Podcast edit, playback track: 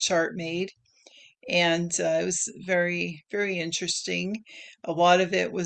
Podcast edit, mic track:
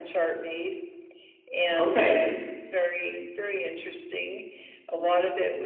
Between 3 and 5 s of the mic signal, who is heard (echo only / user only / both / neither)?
echo only